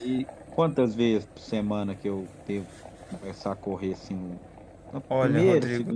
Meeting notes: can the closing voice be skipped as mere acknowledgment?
No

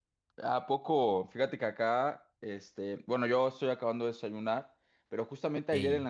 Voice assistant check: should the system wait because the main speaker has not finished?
Yes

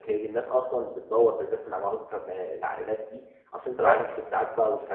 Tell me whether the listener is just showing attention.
Yes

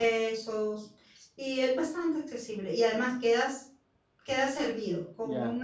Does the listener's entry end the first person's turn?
No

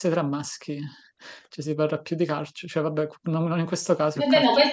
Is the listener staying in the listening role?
No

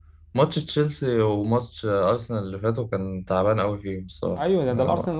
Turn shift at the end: Yes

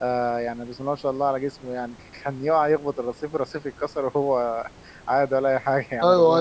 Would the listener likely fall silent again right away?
No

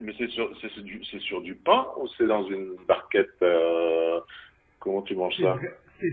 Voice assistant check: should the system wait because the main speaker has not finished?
No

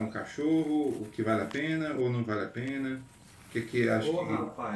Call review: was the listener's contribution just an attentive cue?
No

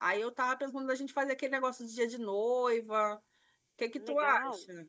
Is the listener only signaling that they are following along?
No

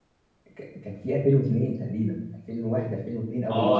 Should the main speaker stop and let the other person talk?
Yes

